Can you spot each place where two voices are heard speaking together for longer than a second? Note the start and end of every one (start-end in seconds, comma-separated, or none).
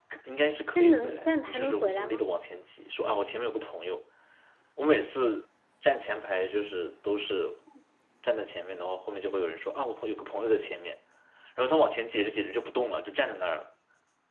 0.7-2.2